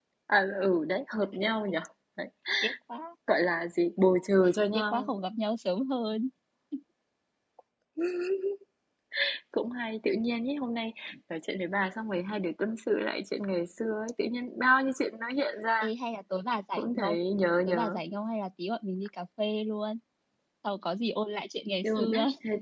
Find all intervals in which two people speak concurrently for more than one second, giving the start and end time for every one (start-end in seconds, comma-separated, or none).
none